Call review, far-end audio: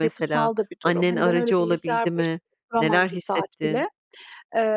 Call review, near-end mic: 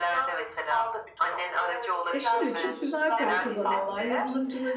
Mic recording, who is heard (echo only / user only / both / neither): both